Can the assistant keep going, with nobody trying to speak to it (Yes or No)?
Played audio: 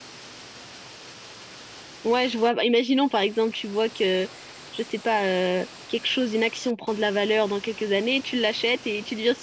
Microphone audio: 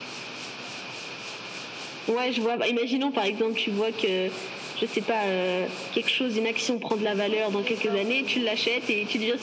No